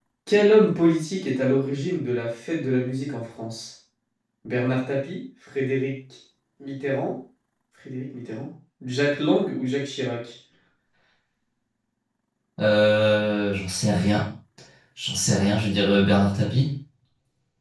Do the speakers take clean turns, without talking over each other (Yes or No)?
Yes